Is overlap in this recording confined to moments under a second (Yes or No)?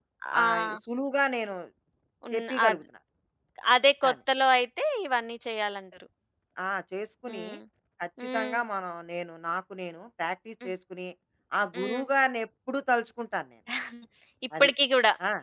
Yes